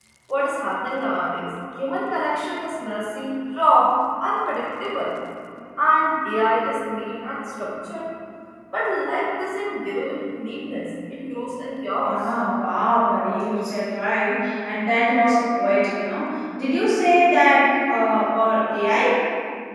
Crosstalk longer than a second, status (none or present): none